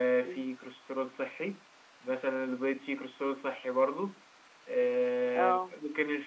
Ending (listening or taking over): listening